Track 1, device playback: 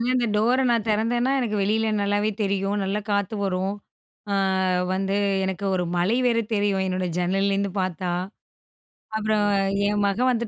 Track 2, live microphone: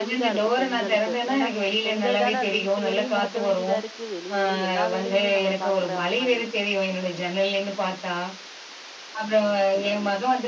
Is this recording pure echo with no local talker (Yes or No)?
No